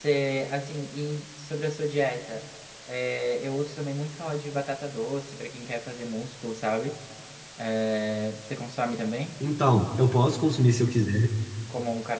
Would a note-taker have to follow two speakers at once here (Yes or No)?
No